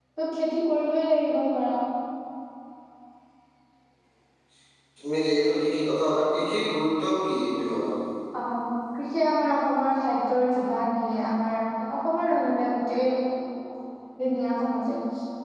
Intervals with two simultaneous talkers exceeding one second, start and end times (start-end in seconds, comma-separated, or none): none